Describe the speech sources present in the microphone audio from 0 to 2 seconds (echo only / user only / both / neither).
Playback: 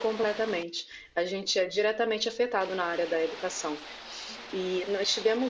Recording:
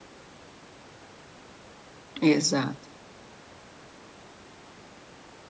neither